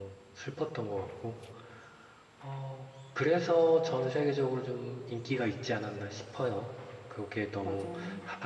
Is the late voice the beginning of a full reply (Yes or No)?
No